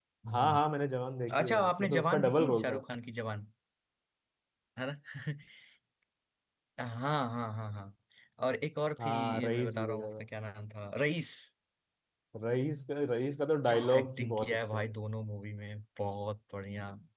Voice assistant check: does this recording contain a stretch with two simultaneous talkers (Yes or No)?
Yes